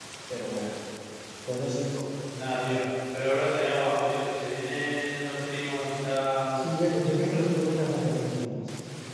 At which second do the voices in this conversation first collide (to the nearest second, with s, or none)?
none